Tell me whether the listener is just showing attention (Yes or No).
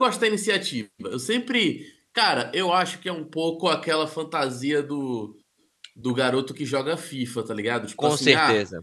Yes